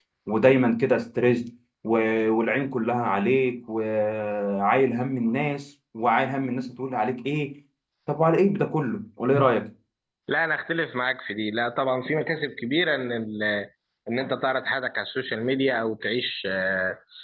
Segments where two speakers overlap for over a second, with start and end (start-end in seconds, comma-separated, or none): none